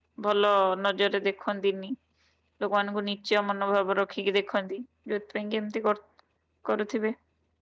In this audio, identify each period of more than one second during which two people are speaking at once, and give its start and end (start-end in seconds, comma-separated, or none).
none